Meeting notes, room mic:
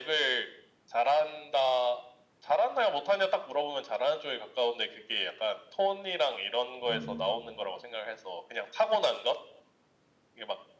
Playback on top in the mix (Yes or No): Yes